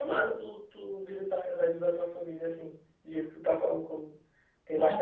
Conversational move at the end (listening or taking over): listening